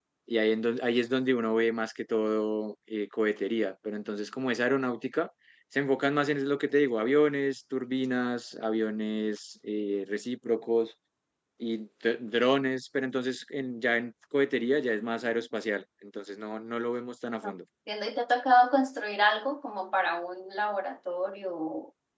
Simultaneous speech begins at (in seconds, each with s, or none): none